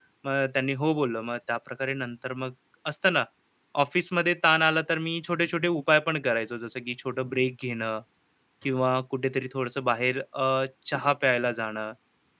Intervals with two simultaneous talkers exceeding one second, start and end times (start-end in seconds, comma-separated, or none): none